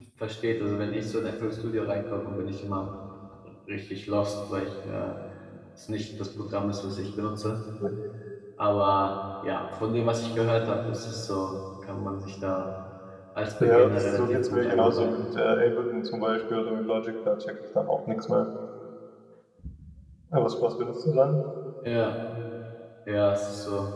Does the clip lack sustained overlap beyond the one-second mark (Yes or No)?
No